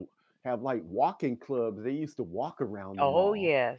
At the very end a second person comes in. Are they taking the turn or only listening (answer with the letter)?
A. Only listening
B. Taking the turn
B